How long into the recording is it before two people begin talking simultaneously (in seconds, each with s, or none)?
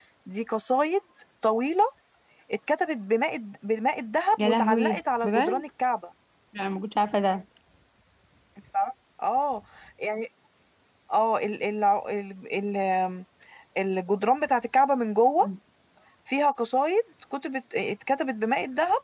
4.4 s